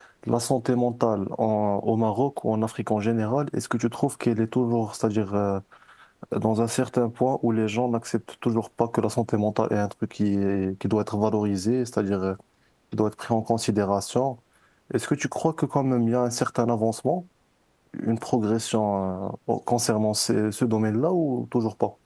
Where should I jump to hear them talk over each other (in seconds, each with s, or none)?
none